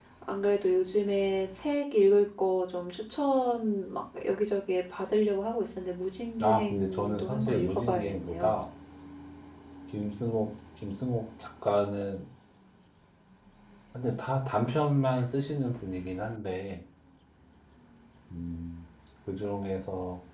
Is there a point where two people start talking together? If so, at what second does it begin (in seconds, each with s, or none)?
6.4 s